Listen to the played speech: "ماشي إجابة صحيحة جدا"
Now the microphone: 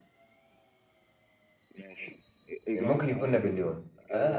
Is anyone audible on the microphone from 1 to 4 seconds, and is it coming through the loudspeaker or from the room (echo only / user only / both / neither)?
both